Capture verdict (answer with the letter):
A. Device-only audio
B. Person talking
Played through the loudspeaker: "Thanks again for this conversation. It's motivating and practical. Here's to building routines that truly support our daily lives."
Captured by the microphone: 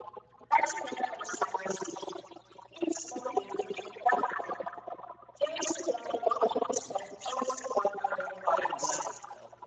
B